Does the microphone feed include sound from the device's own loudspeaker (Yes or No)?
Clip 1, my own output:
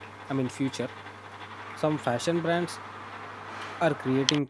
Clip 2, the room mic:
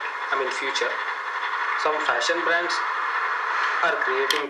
Yes